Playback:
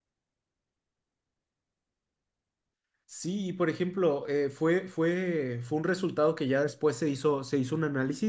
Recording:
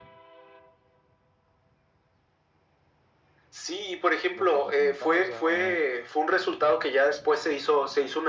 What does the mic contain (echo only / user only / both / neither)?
both